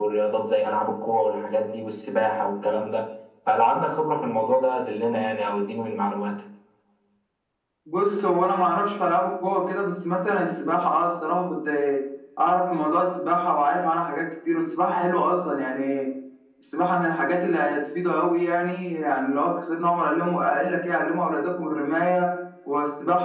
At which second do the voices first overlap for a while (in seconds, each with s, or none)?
none